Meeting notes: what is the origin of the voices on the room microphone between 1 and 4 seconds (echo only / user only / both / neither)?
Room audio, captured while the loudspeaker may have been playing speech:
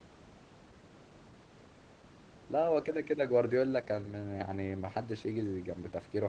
user only